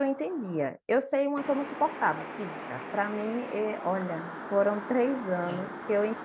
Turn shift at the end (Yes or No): No